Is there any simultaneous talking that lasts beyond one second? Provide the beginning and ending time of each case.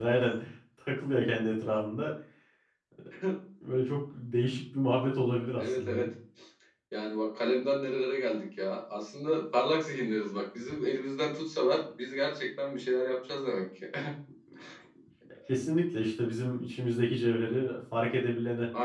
none

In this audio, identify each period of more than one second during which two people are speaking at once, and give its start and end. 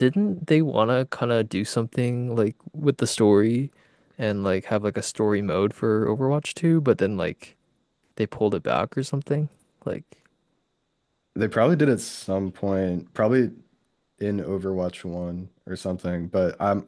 none

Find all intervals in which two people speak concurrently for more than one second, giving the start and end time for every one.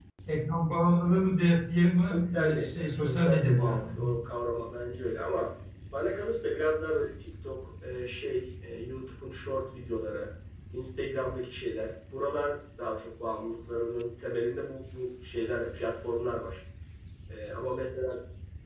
2.1-3.9

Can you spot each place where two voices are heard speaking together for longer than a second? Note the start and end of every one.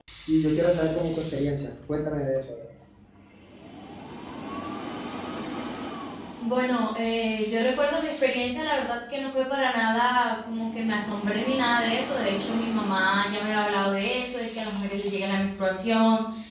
none

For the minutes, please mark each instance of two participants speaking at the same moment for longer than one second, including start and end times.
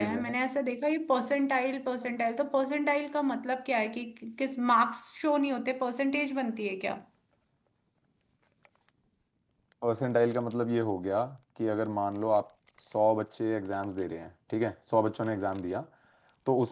none

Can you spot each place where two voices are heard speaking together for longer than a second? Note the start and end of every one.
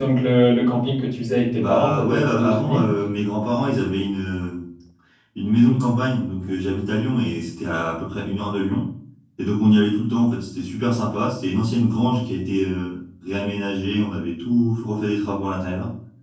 1.6-2.9

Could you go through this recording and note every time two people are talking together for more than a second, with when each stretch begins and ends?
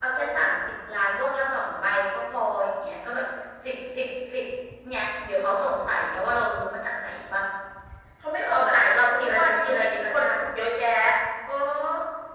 9.2-10.4

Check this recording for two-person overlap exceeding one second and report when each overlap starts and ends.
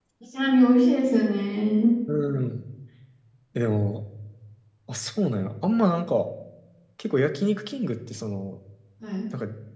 none

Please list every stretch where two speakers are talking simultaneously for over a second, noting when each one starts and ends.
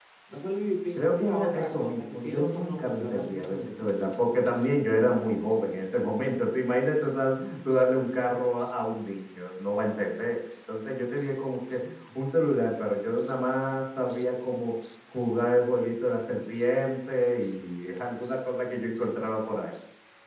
0.9-3.8

